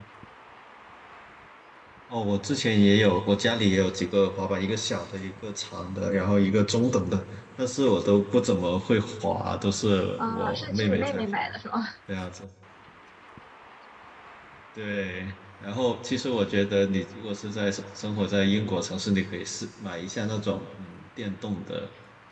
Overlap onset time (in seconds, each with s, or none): 10.2 s